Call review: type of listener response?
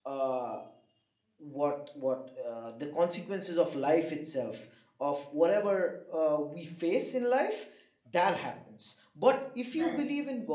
listening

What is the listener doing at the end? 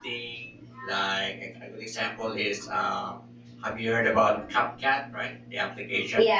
taking over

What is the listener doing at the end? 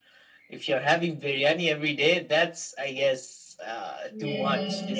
taking over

